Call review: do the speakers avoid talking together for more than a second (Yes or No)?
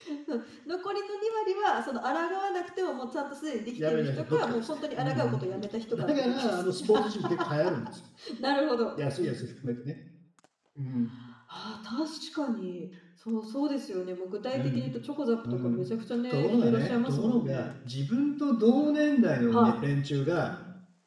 No